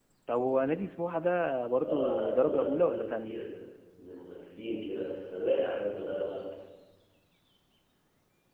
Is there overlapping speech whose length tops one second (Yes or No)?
Yes